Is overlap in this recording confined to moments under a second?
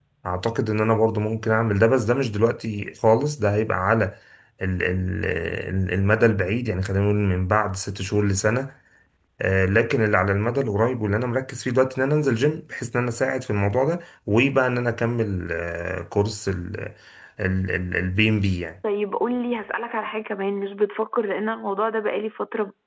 Yes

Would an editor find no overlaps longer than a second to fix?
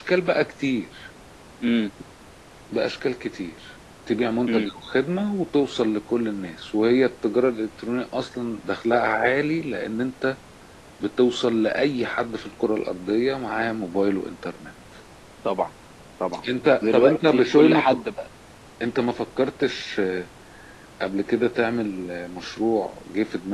No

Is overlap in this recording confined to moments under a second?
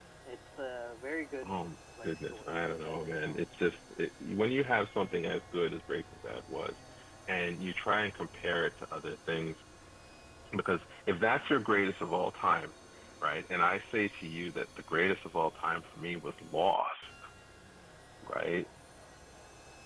No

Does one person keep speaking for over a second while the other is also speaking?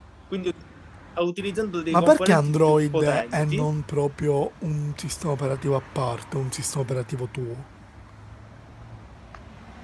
Yes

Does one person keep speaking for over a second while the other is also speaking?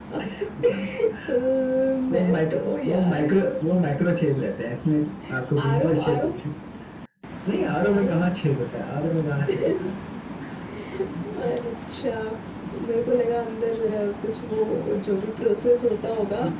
Yes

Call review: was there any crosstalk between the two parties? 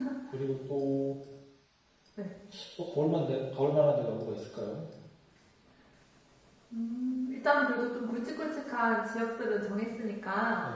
No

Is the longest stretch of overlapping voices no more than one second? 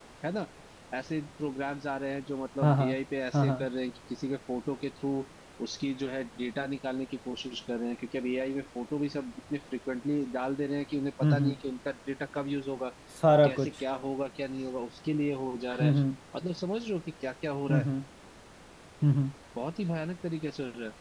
Yes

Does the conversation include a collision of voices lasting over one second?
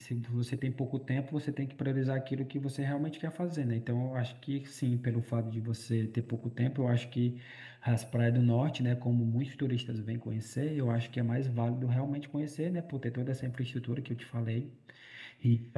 No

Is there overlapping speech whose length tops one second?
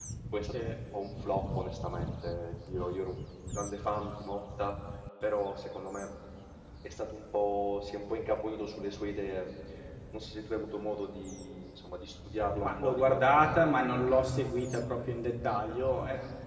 Yes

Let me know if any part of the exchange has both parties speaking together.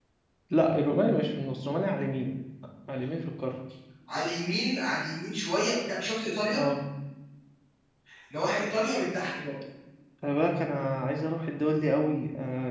No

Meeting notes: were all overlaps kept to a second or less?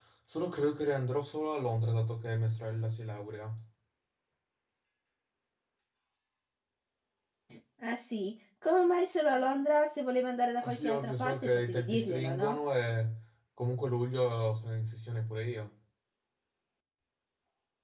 No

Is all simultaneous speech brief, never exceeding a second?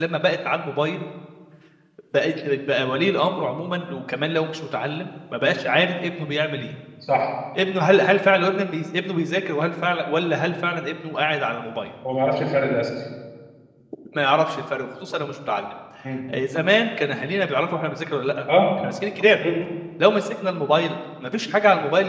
Yes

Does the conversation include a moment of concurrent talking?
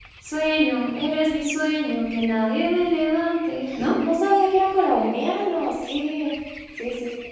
No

